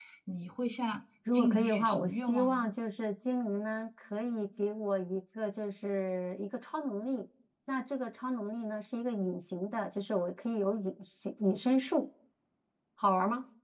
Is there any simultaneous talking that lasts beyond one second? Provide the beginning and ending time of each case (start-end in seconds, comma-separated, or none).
1.3-2.6